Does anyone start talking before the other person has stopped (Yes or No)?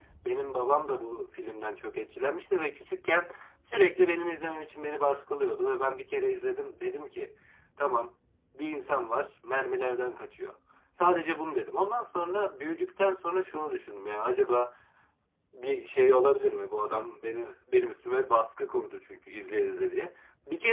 No